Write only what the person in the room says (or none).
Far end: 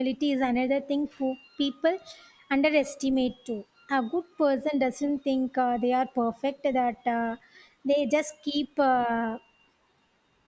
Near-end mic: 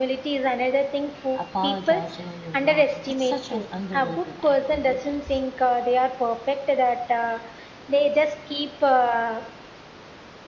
apologizing when you're wrong. That's such an underrated act of goodness.